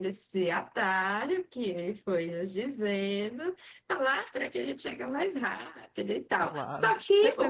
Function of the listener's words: taking over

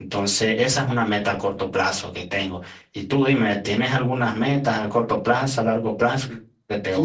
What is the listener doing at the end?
taking over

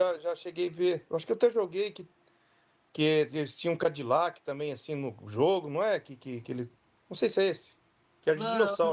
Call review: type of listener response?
taking over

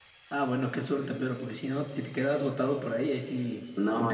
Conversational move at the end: taking over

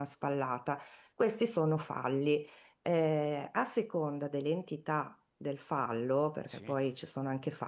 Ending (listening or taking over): listening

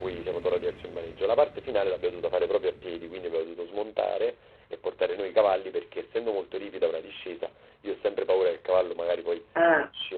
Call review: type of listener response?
listening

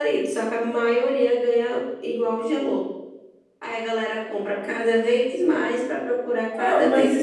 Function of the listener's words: taking over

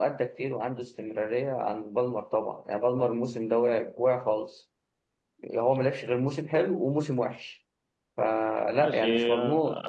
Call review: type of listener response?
taking over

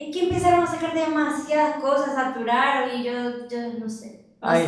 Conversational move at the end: taking over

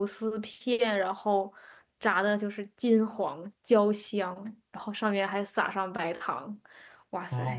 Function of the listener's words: taking over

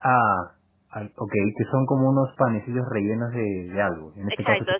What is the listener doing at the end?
taking over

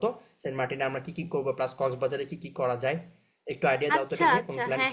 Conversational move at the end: taking over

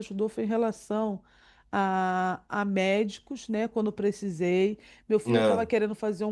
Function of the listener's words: listening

